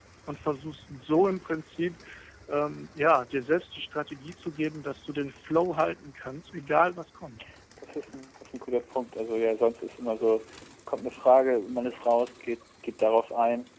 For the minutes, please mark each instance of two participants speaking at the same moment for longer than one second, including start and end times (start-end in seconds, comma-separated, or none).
none